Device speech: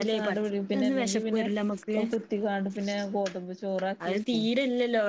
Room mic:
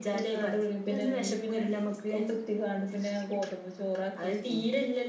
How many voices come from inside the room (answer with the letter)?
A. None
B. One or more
A